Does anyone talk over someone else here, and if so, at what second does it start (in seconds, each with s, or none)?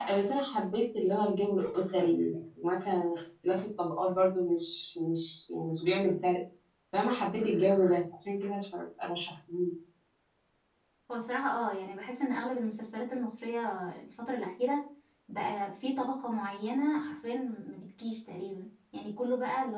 none